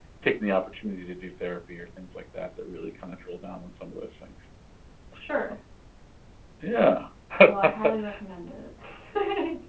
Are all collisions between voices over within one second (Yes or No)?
Yes